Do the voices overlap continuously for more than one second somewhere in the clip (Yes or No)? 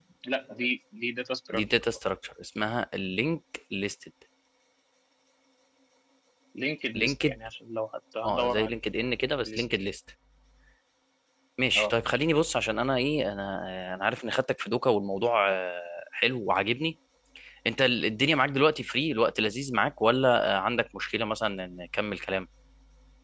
No